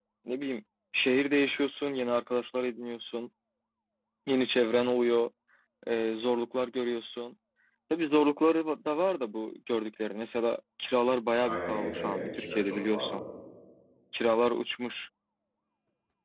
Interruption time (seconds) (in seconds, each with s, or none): 11.4 s